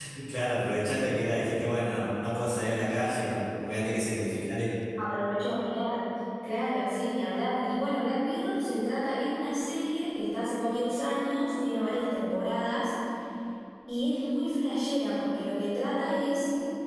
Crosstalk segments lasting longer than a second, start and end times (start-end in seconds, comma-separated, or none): none